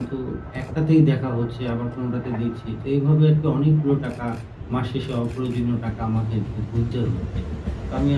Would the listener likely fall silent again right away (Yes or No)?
Yes